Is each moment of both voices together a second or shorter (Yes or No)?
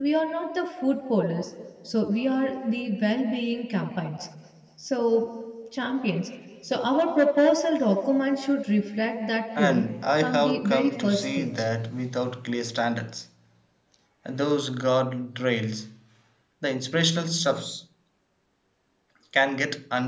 No